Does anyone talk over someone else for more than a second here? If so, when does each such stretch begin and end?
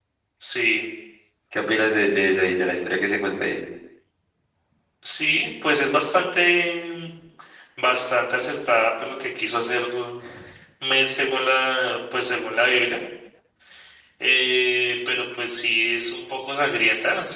none

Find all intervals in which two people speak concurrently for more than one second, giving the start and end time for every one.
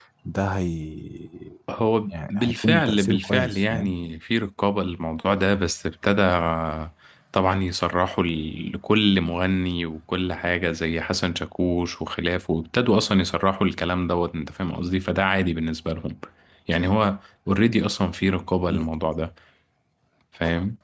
2.1-3.9

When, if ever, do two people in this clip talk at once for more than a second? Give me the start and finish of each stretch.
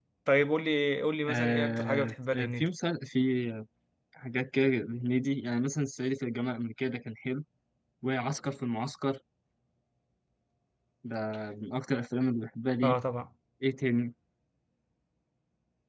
1.3-2.7

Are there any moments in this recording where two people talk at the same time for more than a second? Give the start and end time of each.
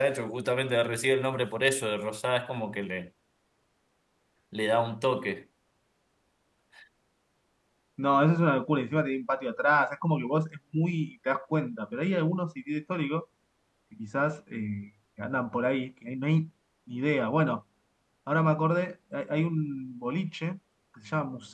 none

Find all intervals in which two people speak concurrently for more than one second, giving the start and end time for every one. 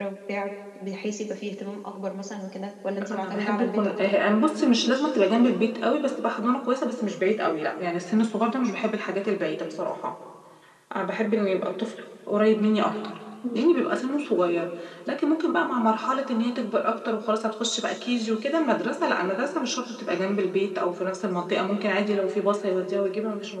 3.0-4.2

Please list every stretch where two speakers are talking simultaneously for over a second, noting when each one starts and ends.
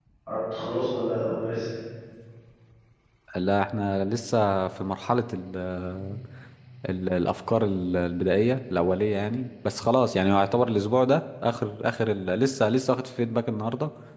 none

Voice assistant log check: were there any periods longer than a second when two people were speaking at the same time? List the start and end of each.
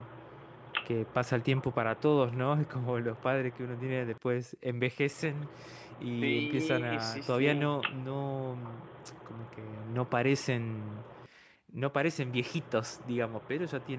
6.2-7.7

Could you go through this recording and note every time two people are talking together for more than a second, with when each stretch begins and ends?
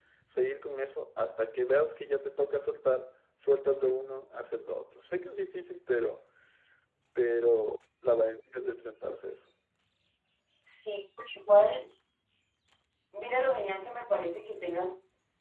none

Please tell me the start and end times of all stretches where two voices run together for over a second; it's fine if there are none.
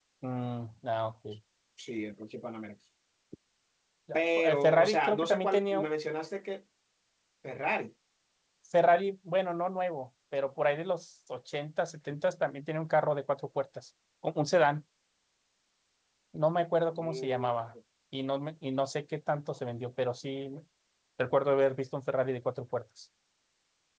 4.1-5.9

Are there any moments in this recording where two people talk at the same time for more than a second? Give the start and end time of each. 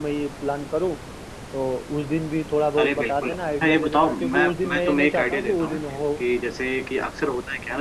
2.8-5.8

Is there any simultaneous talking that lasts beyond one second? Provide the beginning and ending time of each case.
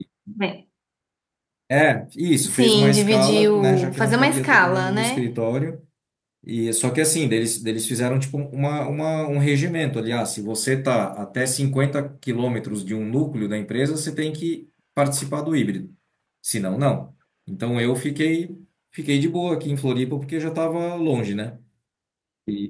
2.4-5.2

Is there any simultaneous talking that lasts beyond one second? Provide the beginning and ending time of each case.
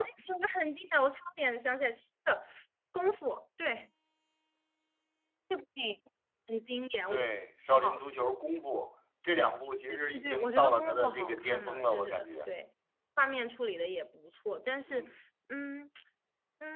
9.9-12.5

